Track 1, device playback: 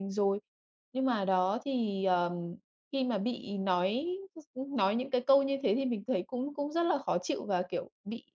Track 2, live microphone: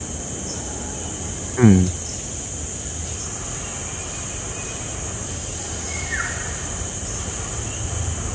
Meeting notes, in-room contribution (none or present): present